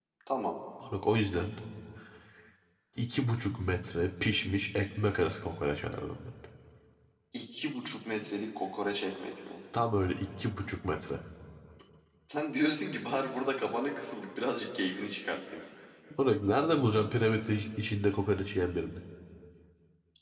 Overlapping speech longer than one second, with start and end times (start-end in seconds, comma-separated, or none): none